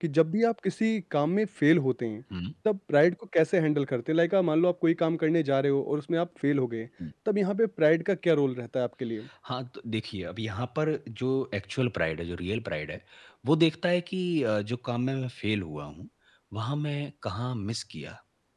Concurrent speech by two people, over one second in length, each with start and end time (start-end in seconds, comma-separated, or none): none